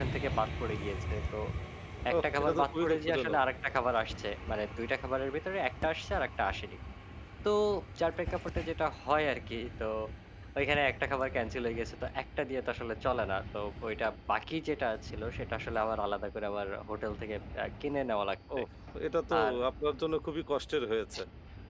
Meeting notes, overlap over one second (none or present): present